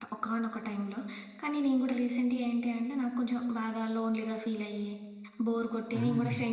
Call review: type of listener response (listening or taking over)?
listening